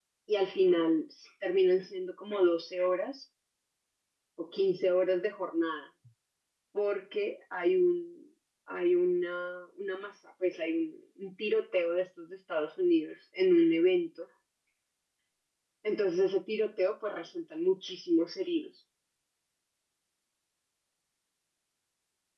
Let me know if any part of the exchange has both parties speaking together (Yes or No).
No